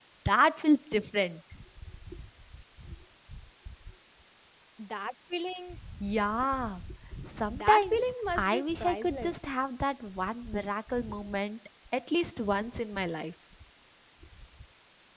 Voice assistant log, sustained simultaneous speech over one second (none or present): present